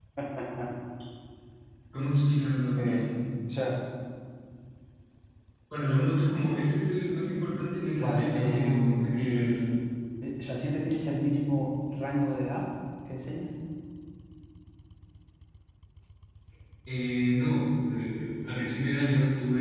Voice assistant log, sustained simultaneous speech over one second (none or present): present